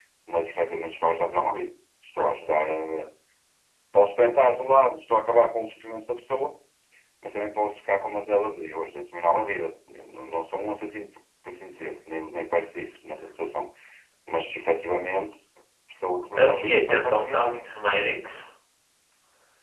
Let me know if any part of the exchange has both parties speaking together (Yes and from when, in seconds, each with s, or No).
Yes, from 16.4 s